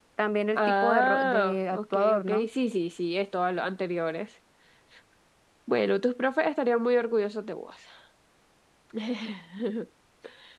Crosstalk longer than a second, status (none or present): present